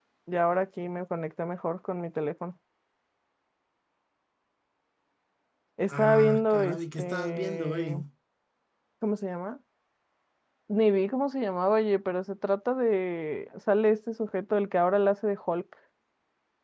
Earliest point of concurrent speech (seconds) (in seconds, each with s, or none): 5.9 s